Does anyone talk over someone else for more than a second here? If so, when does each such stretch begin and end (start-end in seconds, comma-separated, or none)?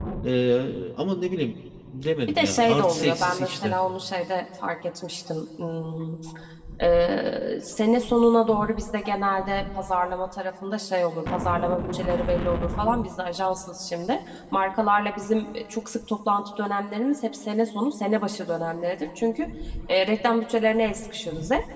2.3-3.7